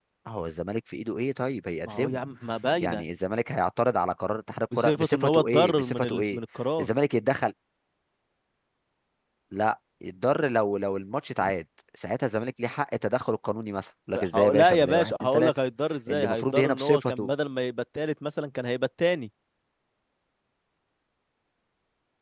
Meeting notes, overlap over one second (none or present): present